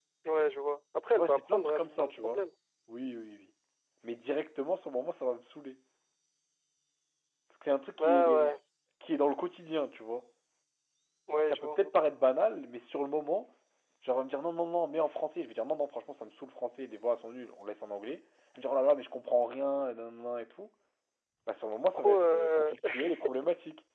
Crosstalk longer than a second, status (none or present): present